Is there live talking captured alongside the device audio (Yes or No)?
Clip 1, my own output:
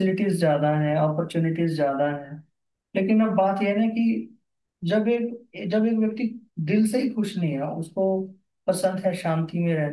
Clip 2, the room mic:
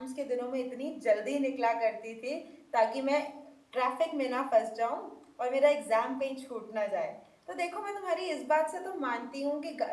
Yes